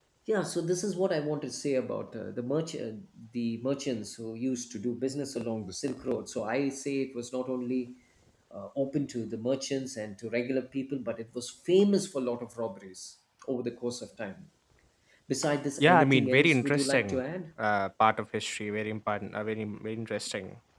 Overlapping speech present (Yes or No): Yes